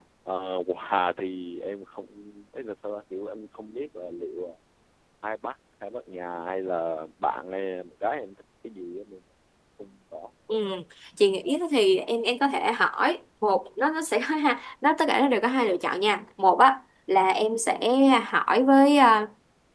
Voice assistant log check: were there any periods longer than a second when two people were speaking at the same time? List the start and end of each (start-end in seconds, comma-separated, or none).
none